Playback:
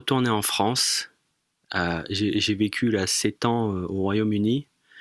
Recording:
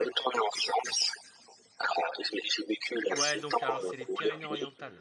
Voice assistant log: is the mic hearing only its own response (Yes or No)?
No